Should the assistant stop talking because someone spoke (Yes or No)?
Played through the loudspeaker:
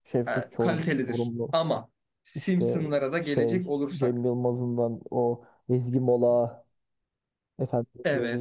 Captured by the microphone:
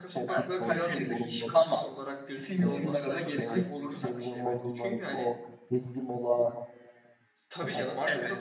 Yes